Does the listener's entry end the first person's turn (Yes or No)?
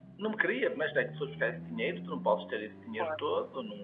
No